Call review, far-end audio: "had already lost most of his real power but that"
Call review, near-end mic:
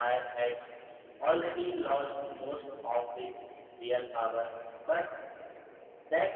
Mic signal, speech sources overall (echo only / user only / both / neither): echo only